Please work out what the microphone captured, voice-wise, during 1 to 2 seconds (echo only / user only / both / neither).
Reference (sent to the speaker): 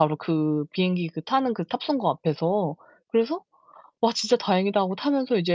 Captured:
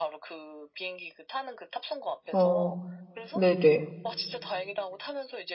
echo only